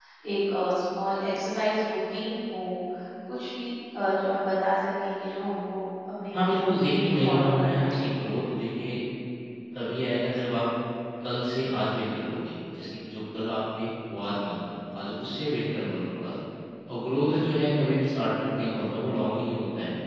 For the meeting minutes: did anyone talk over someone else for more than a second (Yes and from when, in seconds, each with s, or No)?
Yes, from 6.3 s